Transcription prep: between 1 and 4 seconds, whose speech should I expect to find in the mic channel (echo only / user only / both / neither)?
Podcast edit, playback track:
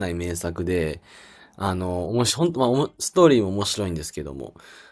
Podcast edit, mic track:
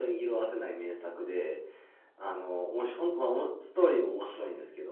echo only